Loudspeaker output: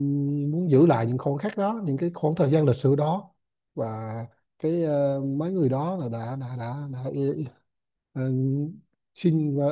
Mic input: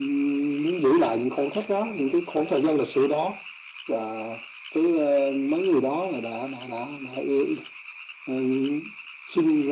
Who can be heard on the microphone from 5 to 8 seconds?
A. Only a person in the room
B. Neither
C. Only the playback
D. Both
C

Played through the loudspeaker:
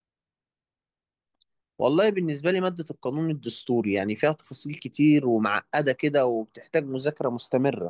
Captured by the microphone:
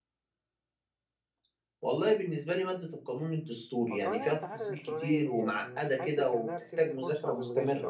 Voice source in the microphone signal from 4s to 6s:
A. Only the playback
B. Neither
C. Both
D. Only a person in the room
C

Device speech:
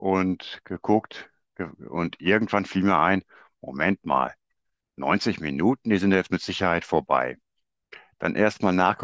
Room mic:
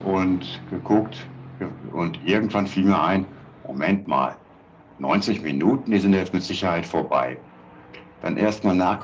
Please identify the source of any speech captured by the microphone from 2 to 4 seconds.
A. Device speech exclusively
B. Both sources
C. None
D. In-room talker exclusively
A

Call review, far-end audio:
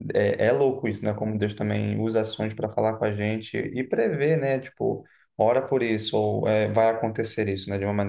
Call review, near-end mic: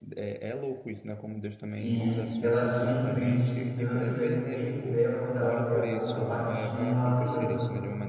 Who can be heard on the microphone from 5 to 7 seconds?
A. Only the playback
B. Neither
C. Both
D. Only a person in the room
C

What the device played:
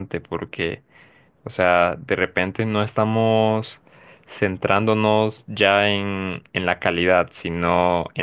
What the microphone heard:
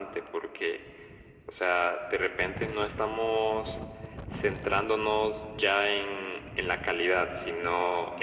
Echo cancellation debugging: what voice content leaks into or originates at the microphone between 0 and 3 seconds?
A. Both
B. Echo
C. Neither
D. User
B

